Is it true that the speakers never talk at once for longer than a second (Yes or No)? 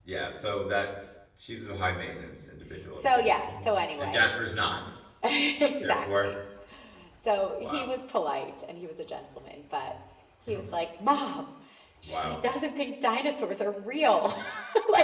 No